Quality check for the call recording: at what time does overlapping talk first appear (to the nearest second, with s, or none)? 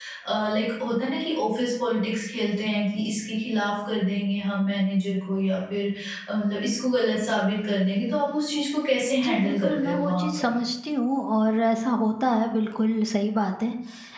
9 s